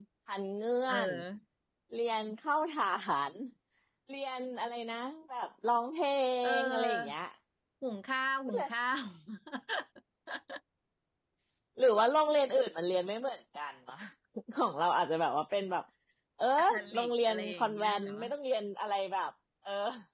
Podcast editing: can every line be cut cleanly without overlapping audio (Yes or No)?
No